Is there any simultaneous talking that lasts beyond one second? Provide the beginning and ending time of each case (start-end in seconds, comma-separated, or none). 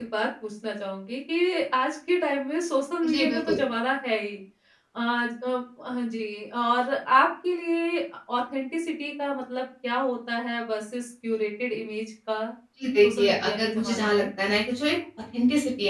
13.0-14.2